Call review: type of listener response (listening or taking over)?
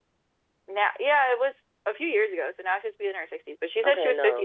taking over